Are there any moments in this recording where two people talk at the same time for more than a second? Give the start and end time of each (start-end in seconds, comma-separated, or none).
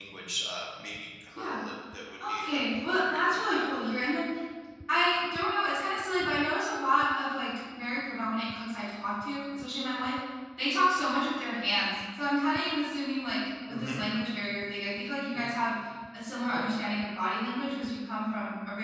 2.3-3.7